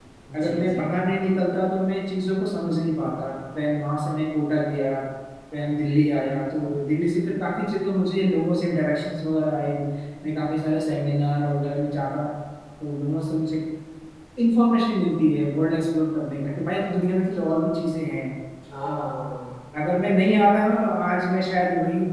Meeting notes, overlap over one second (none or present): none